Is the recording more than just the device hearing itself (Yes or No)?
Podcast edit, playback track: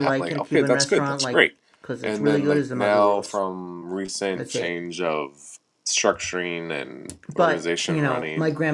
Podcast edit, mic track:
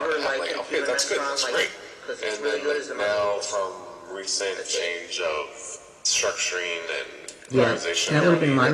Yes